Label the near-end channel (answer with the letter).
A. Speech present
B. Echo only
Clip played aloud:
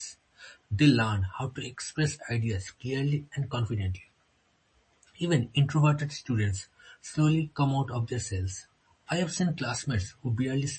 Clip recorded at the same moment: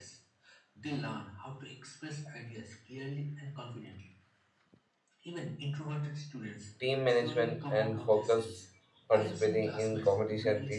A